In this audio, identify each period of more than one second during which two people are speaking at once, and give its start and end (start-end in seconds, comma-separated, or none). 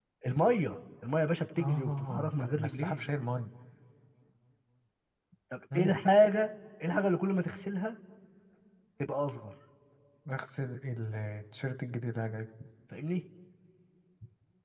1.6-3.1